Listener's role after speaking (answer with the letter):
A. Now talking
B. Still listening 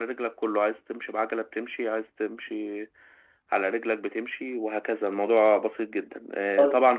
B